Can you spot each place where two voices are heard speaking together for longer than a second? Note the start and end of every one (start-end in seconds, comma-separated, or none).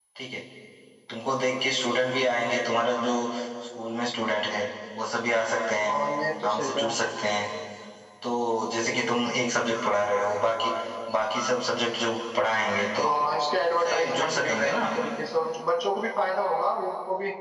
13.7-14.9